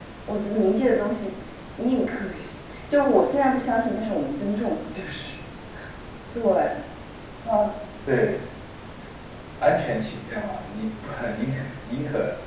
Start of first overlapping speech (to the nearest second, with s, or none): none